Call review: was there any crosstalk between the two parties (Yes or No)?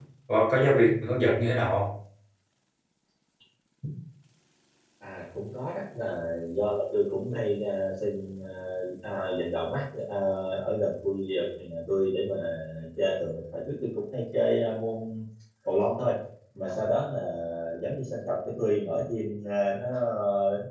No